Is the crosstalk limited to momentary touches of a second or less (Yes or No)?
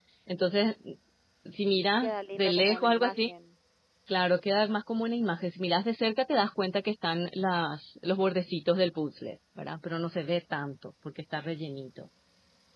No